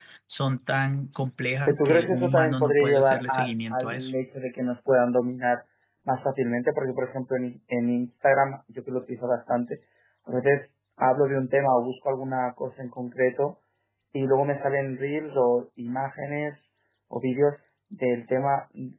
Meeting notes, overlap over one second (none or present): present